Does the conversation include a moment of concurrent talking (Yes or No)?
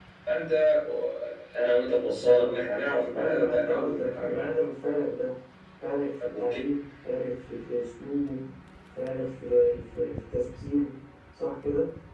Yes